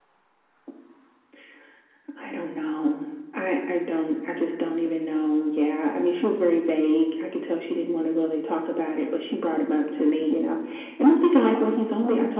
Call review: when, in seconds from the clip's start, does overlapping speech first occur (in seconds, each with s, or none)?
none